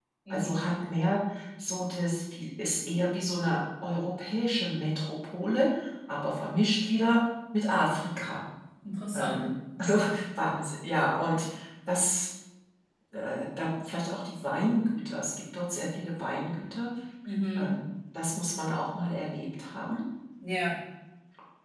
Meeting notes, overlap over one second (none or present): none